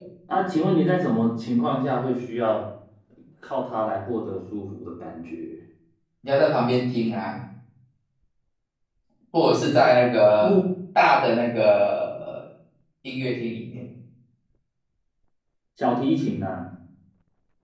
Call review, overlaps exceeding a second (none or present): none